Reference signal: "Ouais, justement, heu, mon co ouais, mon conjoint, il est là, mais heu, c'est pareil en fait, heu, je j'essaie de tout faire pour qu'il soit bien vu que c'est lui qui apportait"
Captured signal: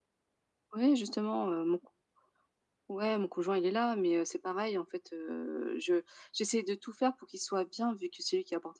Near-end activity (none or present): none